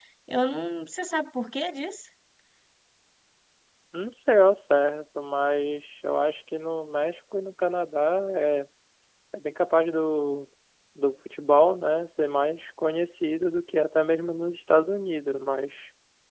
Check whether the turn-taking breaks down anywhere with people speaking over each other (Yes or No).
No